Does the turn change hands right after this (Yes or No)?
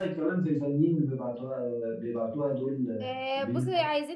Yes